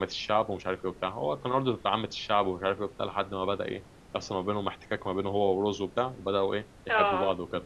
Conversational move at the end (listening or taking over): listening